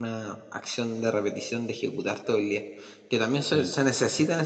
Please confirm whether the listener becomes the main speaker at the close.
No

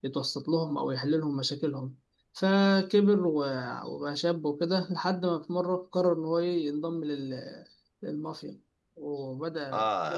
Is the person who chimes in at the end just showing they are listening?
No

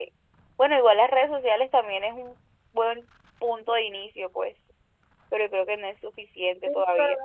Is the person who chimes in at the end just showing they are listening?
No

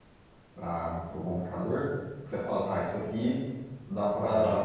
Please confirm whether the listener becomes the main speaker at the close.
No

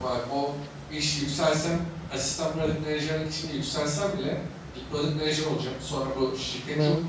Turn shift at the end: No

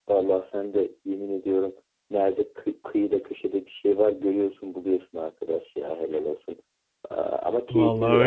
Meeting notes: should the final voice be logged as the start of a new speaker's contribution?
No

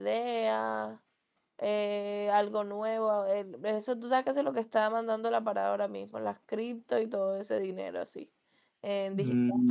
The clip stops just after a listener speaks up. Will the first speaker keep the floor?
Yes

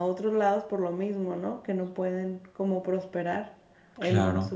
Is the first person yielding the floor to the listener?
Yes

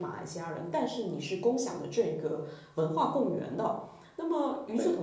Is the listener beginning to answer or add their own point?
No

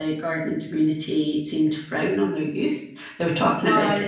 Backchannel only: Yes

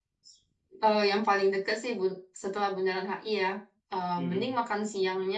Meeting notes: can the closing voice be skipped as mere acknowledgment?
Yes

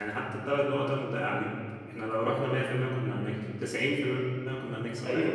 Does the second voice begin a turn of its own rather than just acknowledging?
Yes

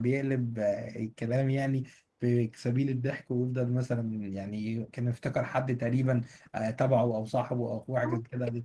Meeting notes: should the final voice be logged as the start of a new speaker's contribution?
Yes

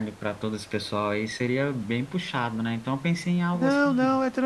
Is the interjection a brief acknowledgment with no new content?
No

